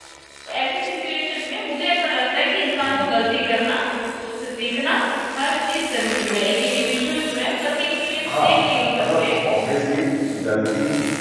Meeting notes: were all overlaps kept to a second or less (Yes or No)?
Yes